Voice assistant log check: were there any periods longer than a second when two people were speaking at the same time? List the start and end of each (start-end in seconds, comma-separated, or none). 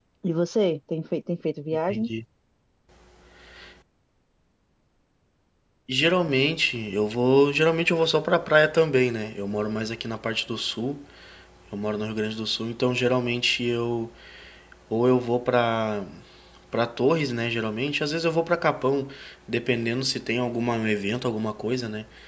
none